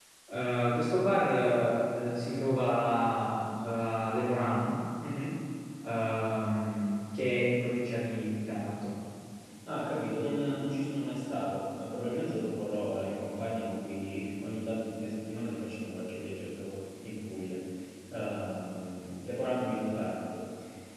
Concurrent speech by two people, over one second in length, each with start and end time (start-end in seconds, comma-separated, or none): none